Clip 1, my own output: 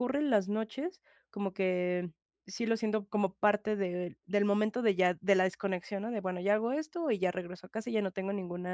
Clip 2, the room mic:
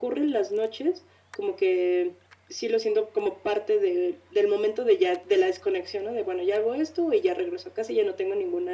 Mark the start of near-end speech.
none

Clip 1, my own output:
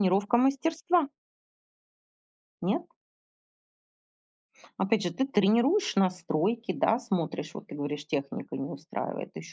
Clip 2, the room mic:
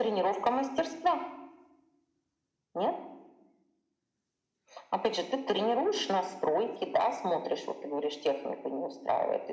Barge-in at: none

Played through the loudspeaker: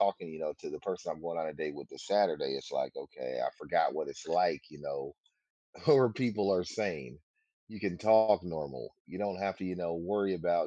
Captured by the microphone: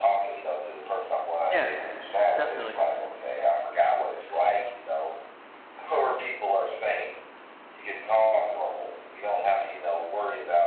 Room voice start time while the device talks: 2 s

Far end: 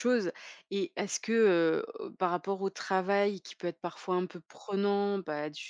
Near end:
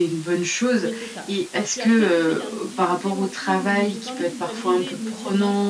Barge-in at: 1 s

